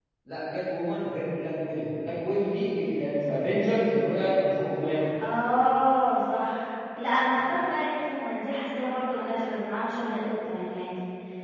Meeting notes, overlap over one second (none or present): none